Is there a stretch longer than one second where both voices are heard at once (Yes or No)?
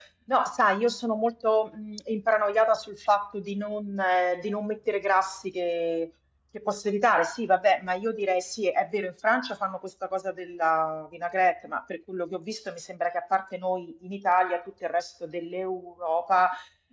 No